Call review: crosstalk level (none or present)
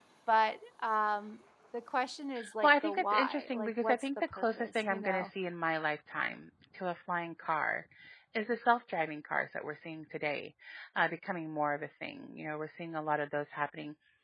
present